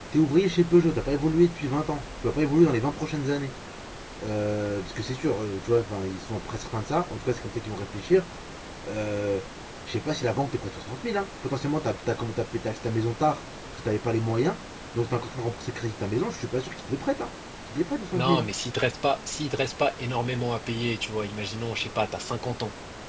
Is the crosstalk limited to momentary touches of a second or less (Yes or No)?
Yes